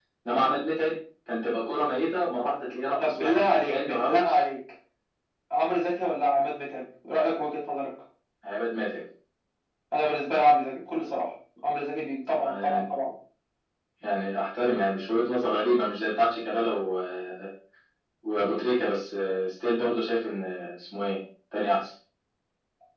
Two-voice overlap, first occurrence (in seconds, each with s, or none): 3.0 s